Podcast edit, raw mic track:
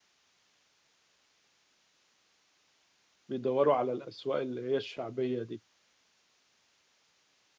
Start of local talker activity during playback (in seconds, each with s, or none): 3.3 s